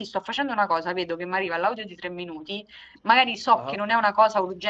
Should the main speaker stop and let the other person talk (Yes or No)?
No